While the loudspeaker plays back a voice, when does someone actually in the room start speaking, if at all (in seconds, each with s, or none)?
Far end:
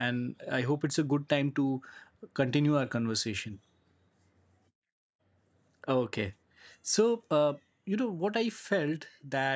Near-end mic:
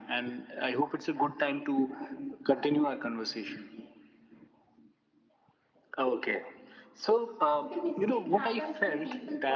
7.6 s